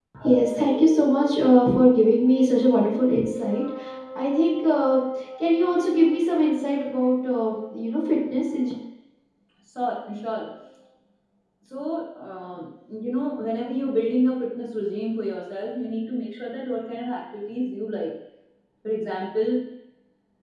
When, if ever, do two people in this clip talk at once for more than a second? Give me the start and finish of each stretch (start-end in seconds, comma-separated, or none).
none